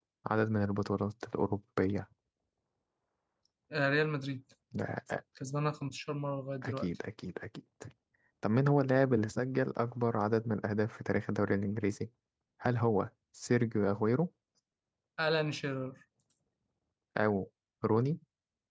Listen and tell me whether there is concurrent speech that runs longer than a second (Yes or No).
No